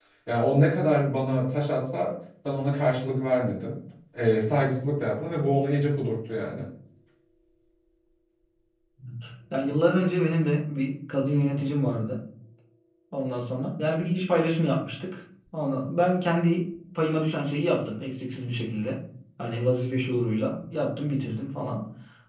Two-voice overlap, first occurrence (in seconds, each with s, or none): none